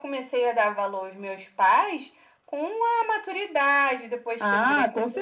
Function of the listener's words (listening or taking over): taking over